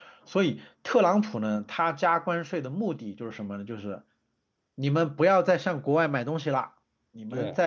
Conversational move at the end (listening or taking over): listening